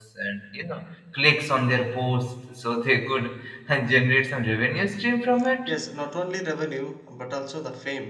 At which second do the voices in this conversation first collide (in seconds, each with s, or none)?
none